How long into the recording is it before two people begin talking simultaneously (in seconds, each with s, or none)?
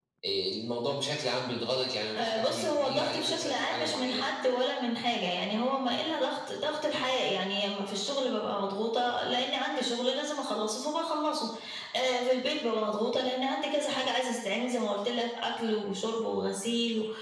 2.1 s